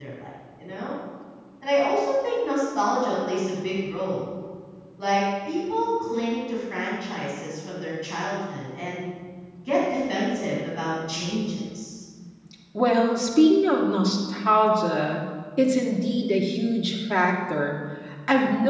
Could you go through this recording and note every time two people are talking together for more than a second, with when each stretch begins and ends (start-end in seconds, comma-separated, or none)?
none